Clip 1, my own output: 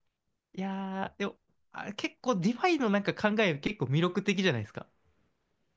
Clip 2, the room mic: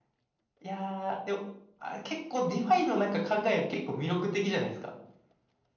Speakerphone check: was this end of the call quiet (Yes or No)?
Yes